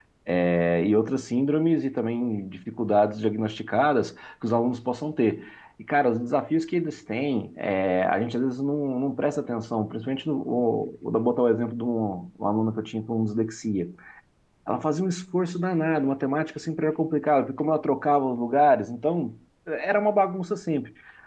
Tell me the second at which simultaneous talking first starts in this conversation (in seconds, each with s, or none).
none